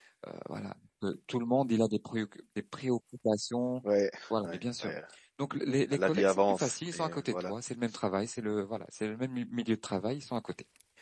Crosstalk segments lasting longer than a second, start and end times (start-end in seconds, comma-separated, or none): 5.9-7.5